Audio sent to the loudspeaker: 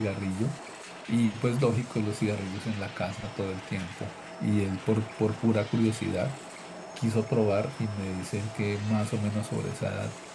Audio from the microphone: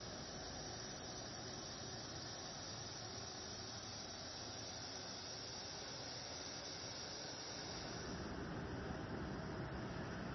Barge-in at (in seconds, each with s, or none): none